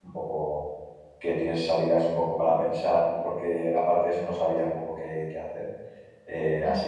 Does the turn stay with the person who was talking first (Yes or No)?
Yes